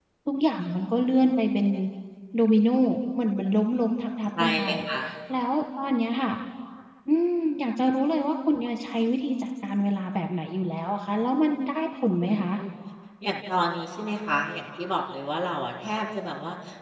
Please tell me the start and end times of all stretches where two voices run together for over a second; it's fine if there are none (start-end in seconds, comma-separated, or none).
none